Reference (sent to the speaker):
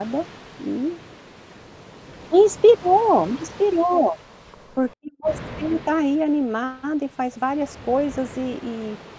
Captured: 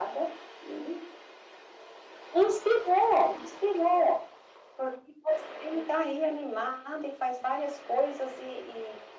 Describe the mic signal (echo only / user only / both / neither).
echo only